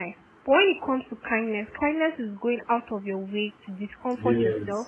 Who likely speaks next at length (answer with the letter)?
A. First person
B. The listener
A